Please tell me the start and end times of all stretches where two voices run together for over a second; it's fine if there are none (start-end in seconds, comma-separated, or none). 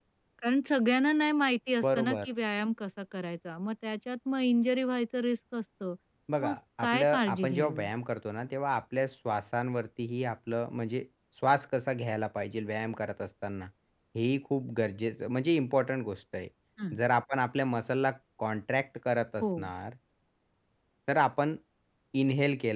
6.4-7.9